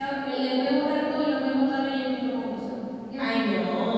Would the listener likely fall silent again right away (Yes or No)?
No